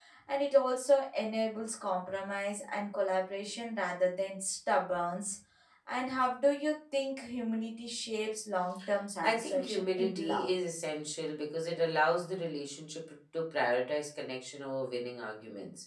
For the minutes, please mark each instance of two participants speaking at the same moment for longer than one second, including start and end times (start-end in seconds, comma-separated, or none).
9.2-10.5